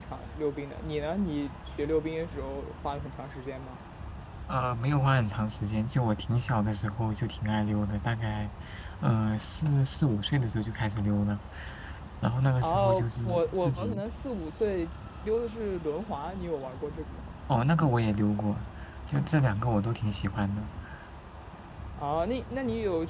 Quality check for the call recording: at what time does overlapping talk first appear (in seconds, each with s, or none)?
12.6 s